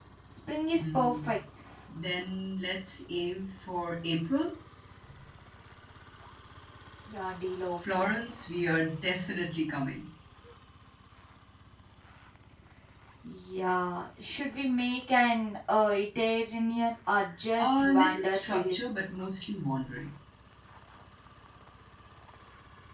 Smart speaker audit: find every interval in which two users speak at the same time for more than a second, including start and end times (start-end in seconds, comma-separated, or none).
17.6-18.8